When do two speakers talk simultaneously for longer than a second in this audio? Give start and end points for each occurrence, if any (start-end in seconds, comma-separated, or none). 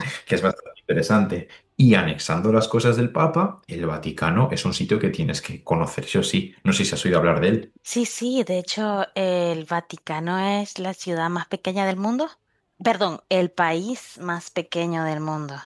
none